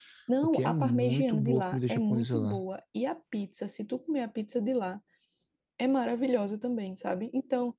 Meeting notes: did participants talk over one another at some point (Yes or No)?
Yes